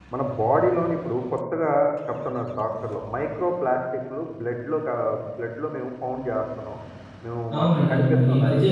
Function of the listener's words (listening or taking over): taking over